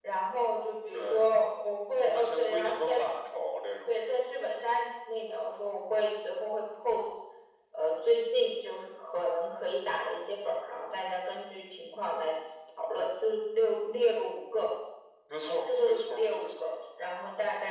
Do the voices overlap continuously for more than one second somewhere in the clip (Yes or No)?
Yes